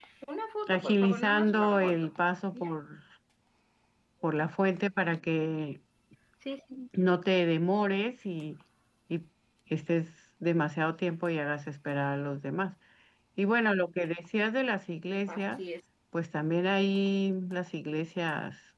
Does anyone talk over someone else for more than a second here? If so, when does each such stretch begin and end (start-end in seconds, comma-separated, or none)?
0.7-2.1